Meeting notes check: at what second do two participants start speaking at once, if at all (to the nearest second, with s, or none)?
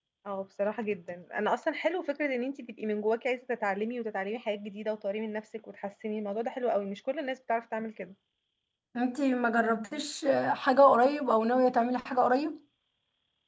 none